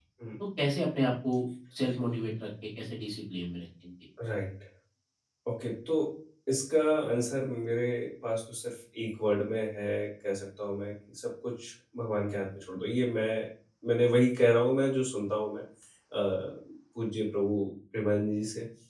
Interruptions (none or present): none